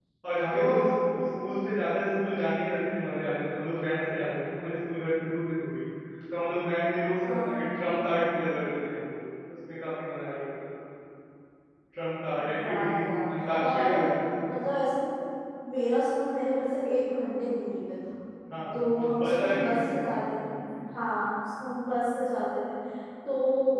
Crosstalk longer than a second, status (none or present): present